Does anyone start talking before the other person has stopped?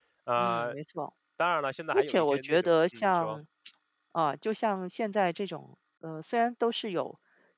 Yes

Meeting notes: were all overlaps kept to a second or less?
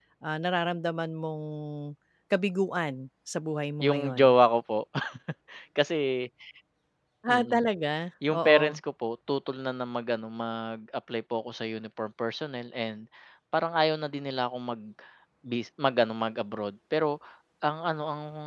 Yes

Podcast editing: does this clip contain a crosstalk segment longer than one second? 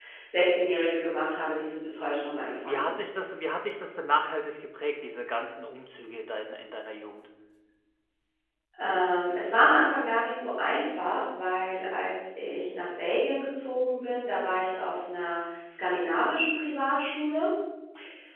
No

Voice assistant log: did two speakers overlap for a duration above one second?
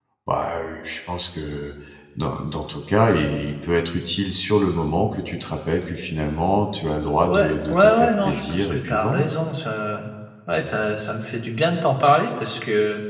Yes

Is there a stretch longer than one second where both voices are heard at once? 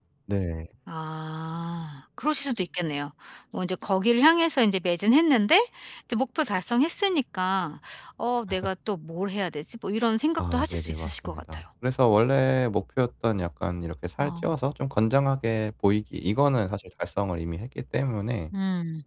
Yes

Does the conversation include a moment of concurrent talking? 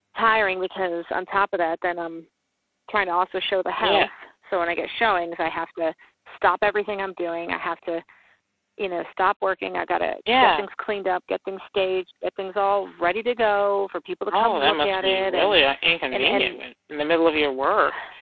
Yes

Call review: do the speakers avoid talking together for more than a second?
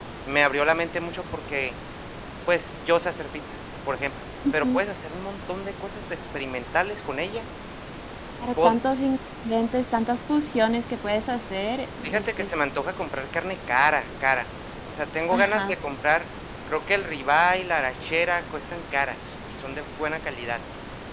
Yes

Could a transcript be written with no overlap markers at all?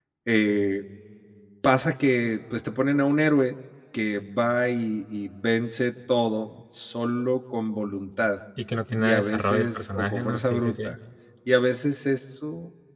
No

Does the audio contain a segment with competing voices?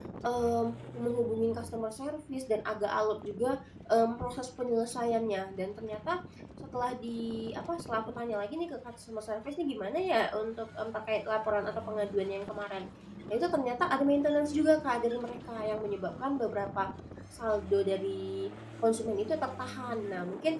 No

